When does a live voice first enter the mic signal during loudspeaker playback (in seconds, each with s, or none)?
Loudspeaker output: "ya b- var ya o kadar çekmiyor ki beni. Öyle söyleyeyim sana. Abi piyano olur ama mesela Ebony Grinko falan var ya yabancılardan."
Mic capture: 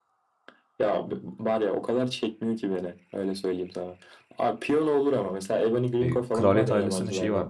6.0 s